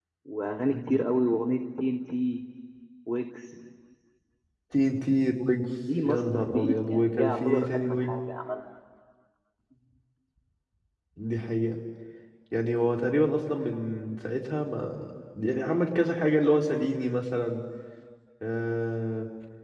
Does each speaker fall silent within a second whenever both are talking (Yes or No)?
No